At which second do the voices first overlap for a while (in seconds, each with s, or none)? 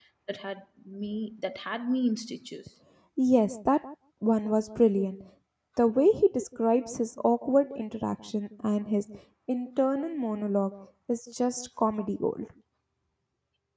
none